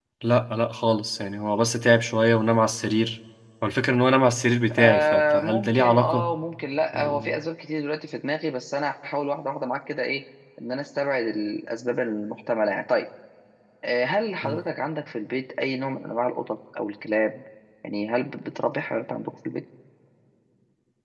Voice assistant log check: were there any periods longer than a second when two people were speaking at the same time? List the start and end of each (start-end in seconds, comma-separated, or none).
4.8-6.3